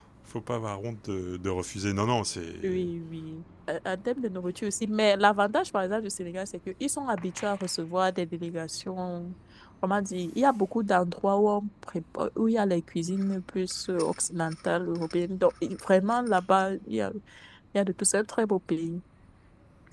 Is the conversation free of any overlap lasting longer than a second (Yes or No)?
Yes